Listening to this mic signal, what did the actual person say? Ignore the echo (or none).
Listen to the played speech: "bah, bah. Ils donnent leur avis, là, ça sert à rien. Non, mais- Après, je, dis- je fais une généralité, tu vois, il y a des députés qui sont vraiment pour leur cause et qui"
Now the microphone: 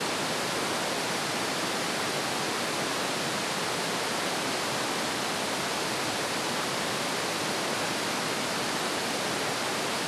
none